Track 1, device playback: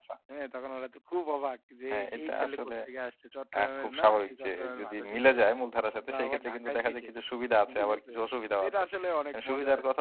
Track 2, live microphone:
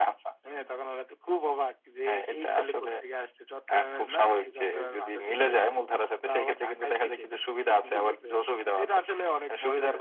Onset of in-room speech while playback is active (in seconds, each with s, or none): none